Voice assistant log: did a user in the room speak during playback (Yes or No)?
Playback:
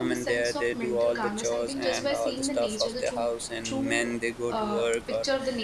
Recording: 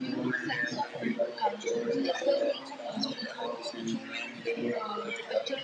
No